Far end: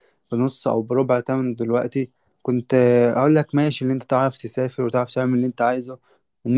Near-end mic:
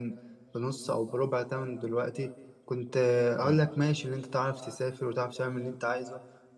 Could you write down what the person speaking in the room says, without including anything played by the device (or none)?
امم